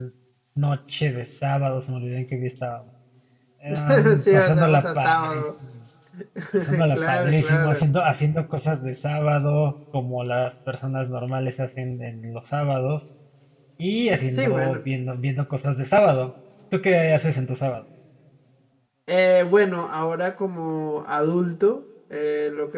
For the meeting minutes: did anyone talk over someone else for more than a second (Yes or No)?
Yes